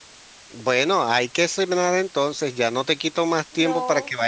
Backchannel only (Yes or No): Yes